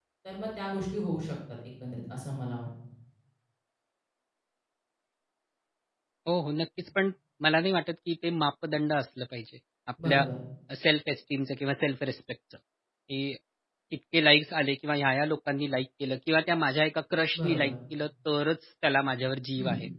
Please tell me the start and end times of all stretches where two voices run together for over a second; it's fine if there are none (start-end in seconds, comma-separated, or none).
none